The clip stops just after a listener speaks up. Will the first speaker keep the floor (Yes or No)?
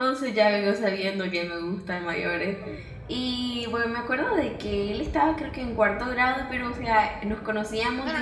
No